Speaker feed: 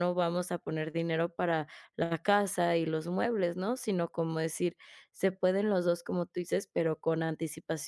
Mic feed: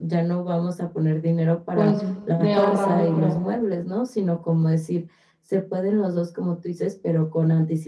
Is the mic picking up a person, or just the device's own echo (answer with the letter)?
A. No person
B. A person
B